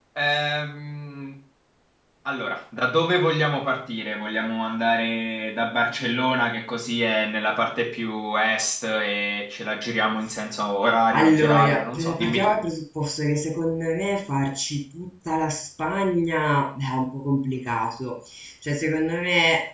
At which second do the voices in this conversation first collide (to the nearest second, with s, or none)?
11 s